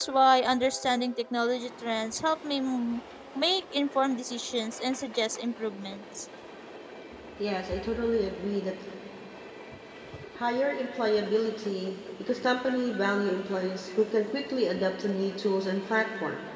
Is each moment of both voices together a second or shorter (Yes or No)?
Yes